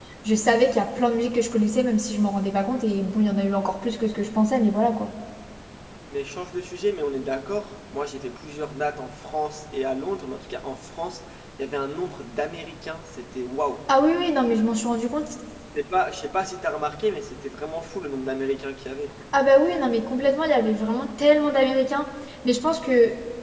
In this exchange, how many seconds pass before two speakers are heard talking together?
none

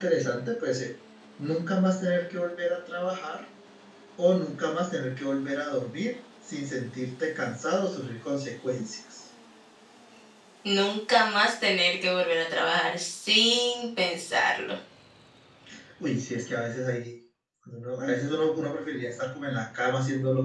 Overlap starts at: none

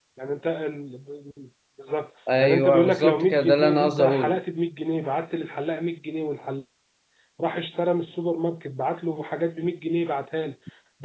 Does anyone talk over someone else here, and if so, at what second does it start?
2.3 s

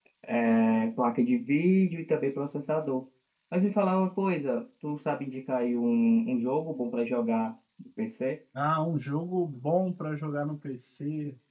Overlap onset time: none

